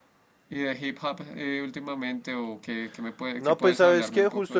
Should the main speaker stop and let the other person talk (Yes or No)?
Yes